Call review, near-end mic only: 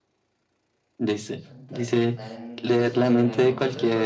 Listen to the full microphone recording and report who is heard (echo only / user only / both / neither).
both